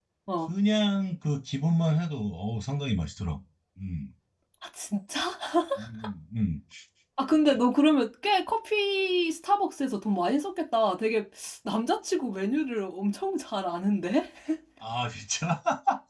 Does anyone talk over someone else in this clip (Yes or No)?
No